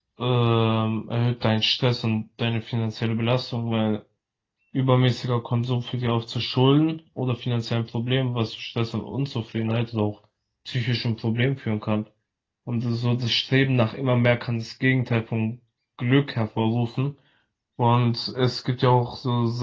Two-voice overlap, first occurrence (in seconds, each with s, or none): none